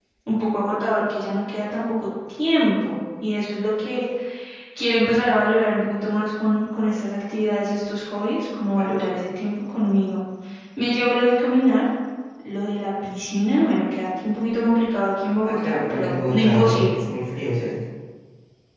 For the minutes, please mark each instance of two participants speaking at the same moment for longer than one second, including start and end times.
15.4-17.0

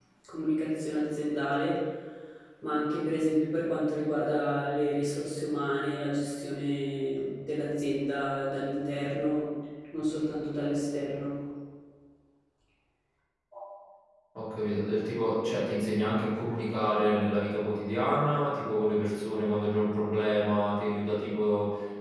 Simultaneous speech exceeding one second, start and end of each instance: none

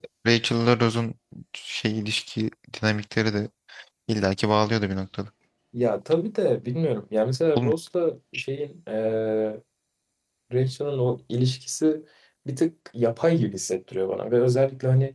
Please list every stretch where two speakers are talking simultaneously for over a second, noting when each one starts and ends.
none

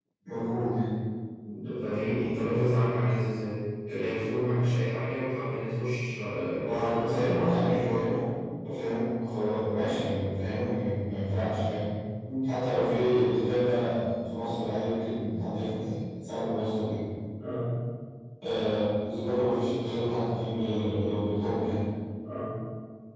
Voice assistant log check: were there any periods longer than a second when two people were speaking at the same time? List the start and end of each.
6.6-8.0

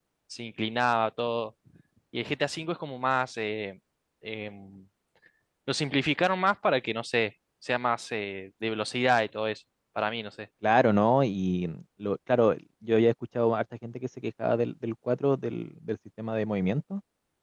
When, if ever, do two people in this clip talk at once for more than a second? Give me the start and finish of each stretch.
none

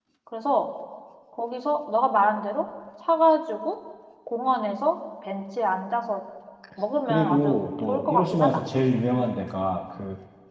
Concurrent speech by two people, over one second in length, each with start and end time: 7.0-8.6

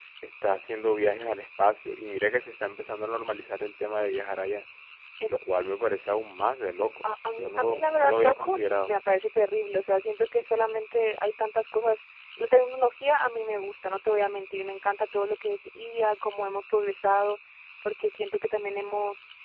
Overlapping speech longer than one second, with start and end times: 7.3-8.9

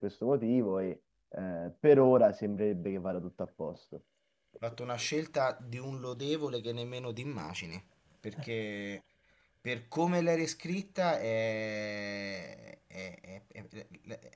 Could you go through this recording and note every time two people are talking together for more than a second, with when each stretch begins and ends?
none

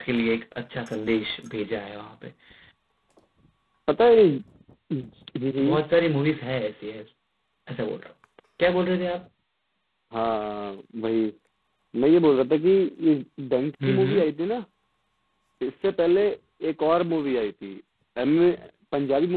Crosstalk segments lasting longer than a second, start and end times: none

